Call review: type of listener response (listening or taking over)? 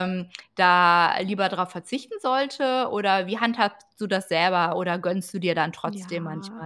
taking over